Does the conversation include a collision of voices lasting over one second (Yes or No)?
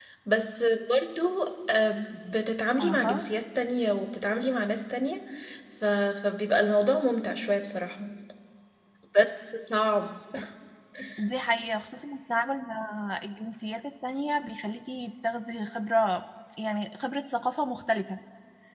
No